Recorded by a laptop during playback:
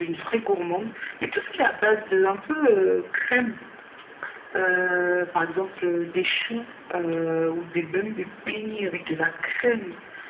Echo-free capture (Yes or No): No